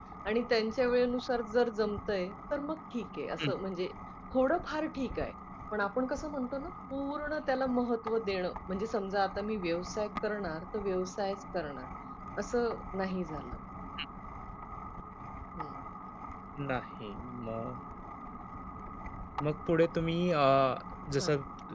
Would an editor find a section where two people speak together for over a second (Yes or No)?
No